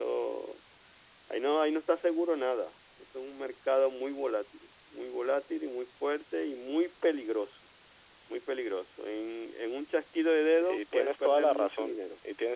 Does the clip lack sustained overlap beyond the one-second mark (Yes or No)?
No